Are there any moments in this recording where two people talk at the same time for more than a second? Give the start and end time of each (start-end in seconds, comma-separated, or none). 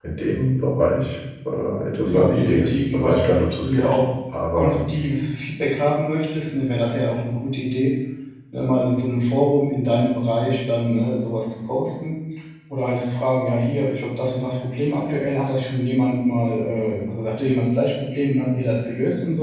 2.0-3.2